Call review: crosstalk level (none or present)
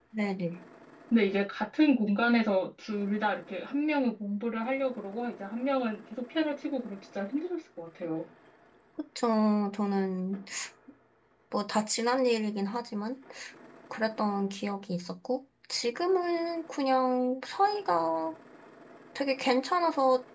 none